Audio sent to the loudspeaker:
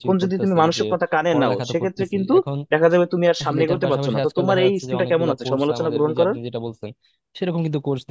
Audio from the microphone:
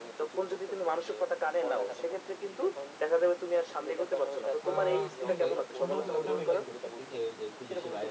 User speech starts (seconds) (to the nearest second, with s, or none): 5 s